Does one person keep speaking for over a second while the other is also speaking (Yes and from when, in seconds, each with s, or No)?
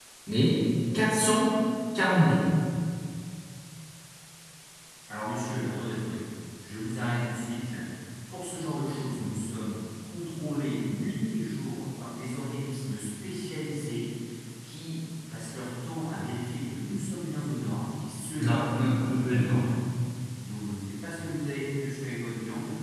Yes, from 18.4 s